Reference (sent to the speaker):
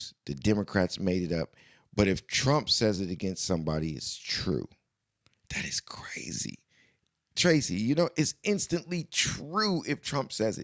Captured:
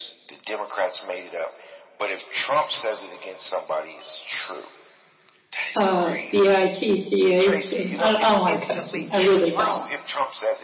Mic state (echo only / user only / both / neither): both